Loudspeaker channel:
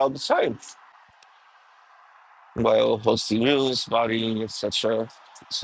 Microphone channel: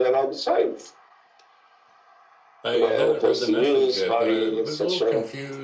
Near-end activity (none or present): present